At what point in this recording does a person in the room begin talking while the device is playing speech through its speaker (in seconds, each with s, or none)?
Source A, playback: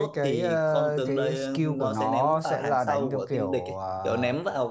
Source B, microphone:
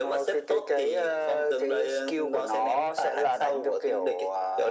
none